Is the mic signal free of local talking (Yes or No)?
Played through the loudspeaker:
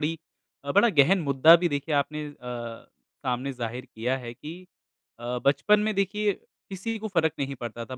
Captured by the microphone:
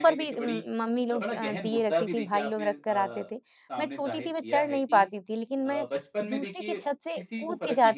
No